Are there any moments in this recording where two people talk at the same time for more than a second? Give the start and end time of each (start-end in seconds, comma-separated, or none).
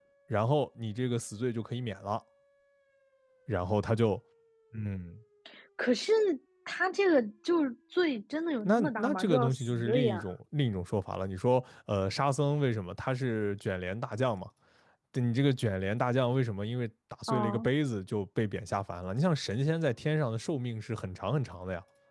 8.7-10.2